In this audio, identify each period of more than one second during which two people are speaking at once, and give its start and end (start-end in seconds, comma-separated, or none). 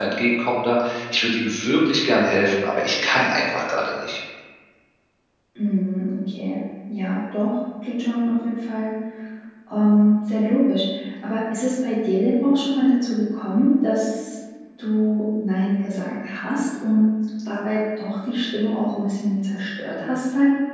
none